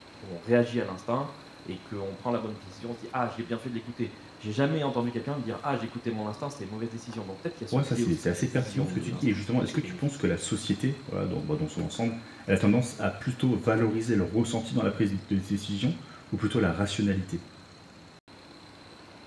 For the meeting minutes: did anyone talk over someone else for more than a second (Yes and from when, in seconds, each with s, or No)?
Yes, from 7.7 s